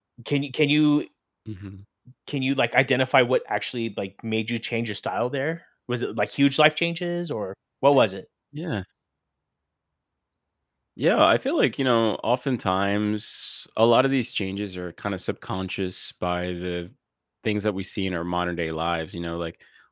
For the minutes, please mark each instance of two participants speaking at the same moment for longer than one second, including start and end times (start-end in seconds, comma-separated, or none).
none